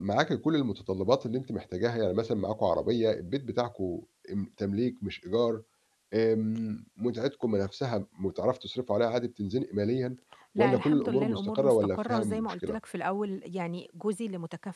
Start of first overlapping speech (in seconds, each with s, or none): 10.6 s